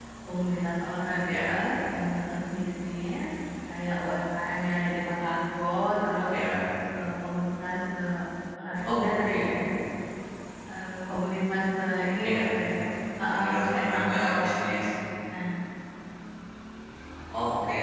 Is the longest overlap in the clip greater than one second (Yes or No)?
Yes